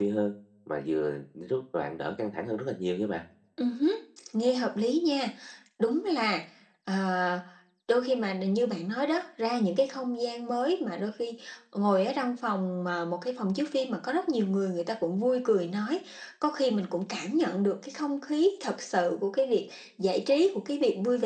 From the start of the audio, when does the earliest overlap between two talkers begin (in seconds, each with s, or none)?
none